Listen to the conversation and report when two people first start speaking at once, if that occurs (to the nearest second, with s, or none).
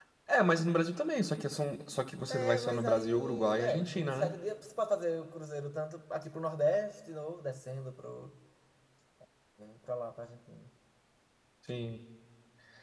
2 s